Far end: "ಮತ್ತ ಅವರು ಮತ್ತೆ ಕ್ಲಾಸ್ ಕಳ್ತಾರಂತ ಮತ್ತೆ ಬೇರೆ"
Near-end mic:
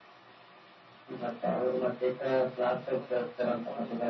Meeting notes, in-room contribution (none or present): present